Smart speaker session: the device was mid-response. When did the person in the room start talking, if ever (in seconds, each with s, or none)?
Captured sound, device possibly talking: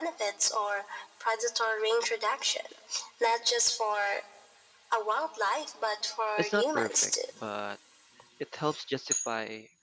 6.4 s